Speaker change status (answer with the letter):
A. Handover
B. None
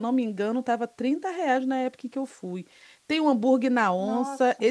B